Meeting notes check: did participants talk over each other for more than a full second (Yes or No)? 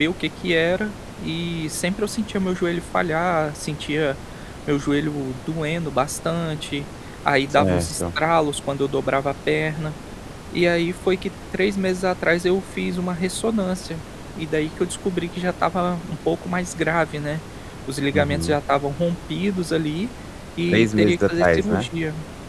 Yes